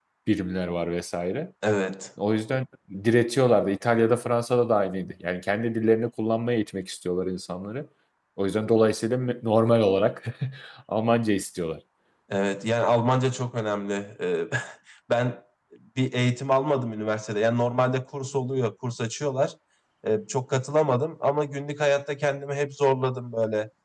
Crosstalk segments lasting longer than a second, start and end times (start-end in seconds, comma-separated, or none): none